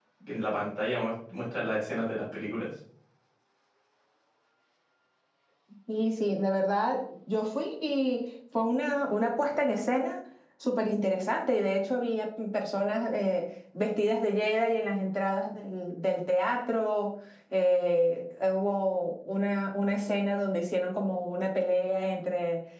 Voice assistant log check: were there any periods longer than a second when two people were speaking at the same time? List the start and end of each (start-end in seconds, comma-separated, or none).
none